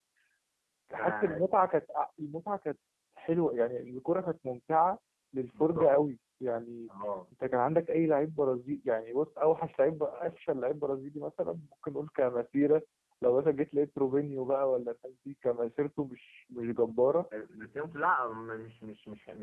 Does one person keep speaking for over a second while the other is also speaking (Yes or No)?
No